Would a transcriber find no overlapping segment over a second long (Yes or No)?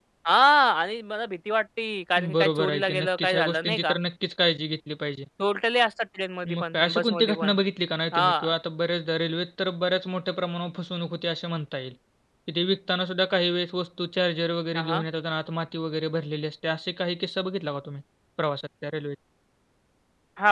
No